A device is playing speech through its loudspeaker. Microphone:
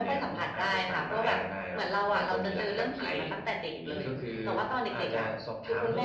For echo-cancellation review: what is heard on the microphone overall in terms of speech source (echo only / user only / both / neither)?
echo only